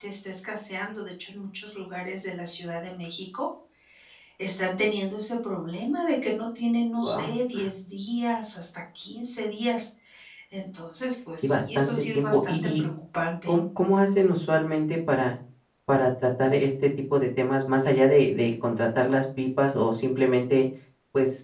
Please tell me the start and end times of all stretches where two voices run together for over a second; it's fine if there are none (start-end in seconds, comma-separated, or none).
11.4-12.8